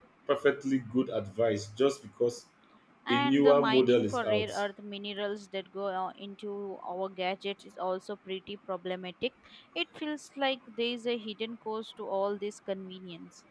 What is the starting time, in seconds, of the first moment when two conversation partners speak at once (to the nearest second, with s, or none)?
3 s